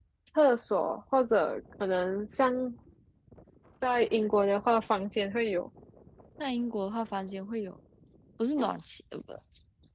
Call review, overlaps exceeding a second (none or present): none